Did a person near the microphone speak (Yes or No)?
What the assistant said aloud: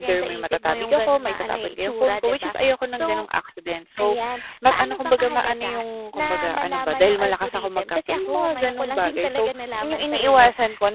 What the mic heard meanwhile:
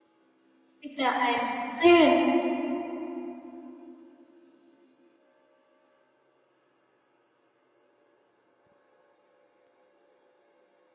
Yes